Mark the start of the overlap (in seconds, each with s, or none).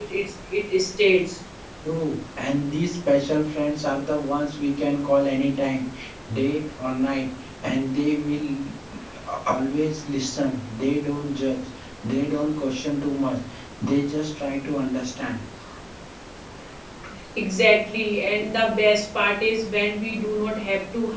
none